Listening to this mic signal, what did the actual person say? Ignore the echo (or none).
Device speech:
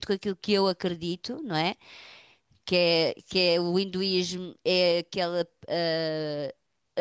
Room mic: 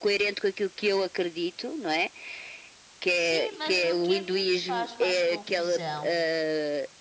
Sim, mas o que a mim me faz mais confusão